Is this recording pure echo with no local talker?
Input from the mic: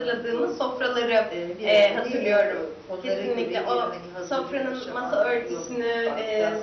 Yes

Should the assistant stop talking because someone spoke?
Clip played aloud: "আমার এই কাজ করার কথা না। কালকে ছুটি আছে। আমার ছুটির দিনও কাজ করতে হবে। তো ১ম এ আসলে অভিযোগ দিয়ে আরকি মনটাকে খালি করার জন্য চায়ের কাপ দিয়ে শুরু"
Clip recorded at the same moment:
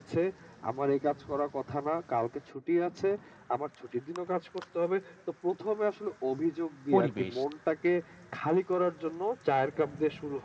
Yes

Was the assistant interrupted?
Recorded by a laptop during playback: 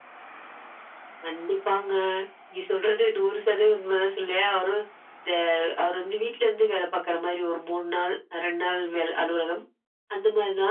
No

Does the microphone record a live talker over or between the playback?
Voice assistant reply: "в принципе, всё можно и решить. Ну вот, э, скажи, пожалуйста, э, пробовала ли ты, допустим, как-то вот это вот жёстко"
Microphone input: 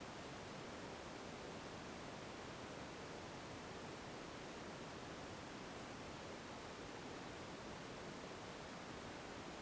No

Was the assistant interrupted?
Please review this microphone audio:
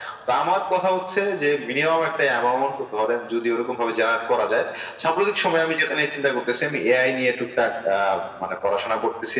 No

